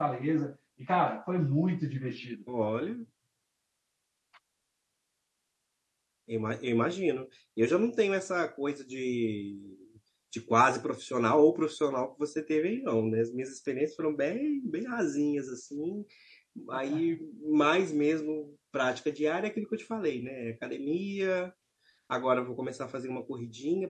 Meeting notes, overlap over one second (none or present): none